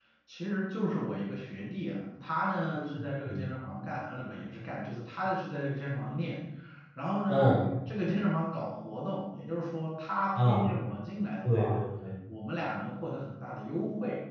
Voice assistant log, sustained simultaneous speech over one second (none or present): none